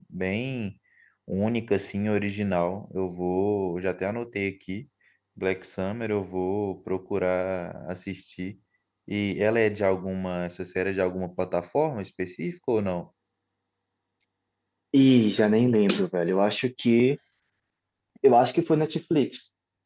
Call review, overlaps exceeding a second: none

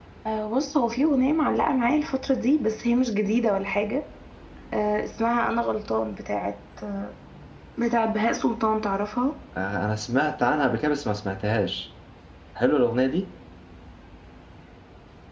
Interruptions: none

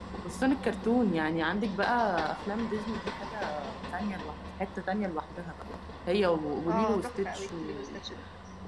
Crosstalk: present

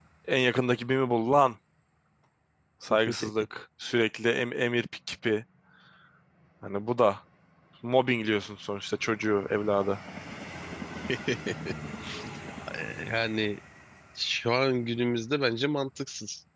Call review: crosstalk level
none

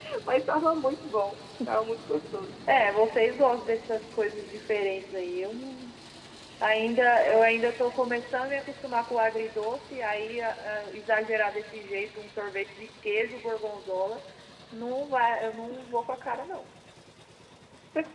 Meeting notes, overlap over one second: none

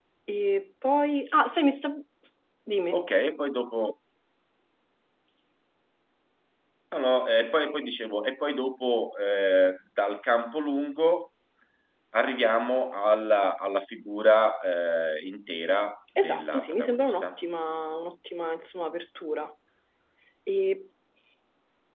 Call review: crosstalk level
present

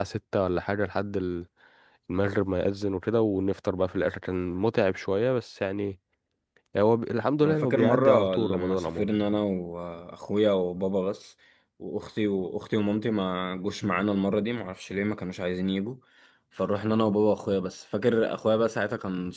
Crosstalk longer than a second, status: present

